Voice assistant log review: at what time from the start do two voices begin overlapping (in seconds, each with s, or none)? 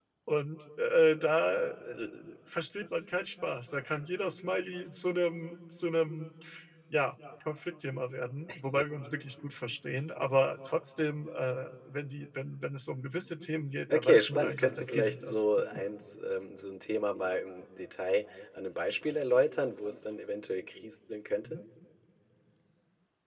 13.9 s